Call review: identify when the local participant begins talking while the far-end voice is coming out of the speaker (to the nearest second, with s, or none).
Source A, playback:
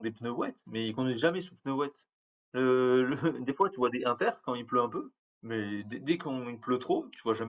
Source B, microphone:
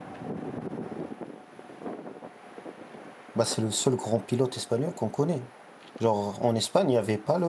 3 s